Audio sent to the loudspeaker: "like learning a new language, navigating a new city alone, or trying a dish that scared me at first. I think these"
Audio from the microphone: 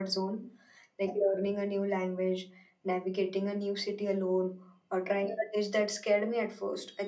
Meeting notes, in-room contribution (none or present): none